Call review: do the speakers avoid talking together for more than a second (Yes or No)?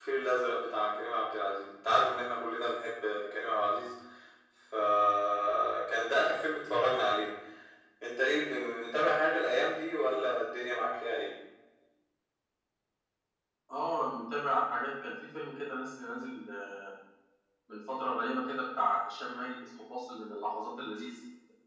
Yes